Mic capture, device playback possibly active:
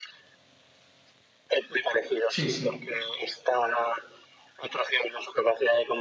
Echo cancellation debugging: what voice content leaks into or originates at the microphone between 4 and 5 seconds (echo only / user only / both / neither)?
echo only